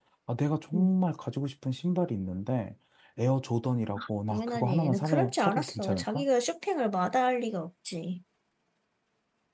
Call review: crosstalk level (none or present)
present